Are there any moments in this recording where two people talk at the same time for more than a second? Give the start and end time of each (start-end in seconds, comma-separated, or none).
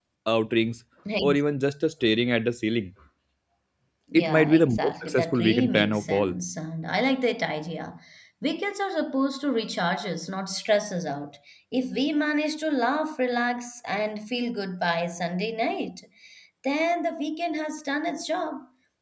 4.1-6.3